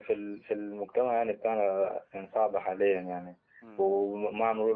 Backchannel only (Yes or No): Yes